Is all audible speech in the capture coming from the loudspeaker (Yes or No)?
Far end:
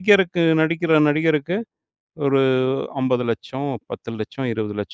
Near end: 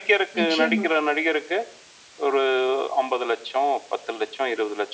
No